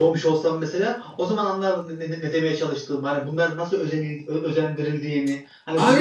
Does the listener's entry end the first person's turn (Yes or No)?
Yes